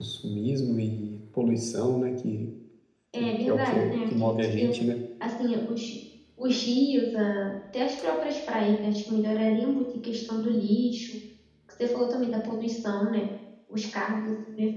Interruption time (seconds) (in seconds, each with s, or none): 3.1 s